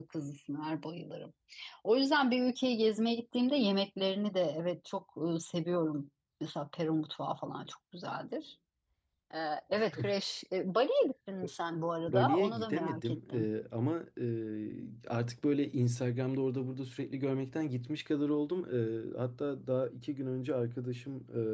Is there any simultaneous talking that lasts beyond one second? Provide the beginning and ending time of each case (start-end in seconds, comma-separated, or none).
12.1-13.5